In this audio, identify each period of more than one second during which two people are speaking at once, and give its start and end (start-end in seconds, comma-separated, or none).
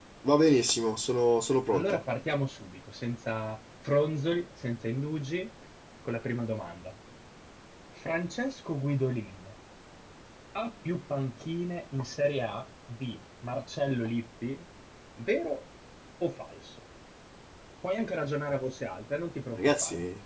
none